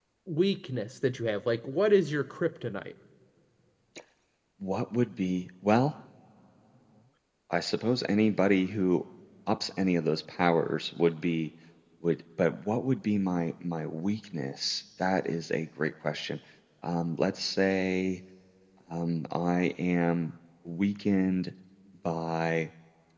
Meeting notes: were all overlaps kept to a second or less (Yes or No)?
Yes